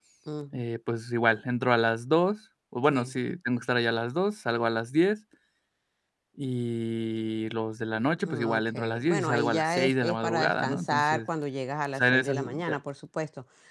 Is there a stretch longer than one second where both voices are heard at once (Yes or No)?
Yes